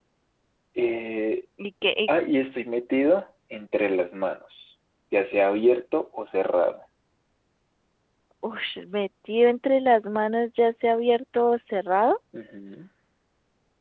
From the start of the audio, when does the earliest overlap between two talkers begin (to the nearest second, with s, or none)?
none